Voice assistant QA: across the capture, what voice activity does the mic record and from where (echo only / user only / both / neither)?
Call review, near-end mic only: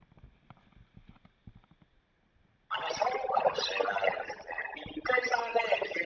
echo only